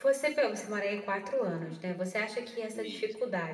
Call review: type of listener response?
listening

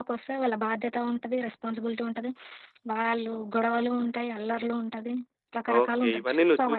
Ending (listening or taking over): taking over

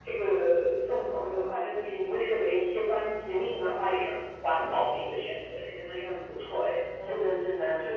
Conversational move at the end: taking over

